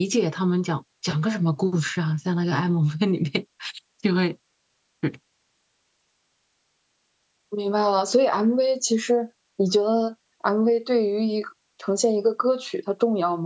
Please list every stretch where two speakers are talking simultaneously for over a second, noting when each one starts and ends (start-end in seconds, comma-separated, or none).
none